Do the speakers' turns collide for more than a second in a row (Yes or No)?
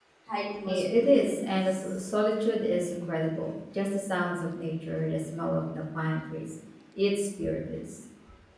Yes